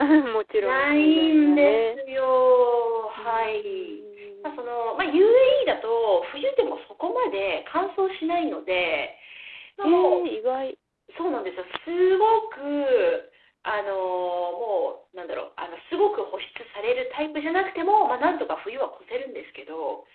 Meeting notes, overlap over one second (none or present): present